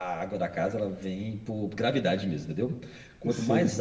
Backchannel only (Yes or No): Yes